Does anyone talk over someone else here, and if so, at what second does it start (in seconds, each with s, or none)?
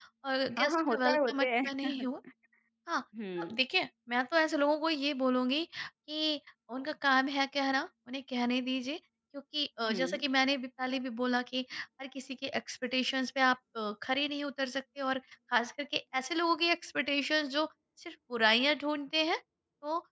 0.6 s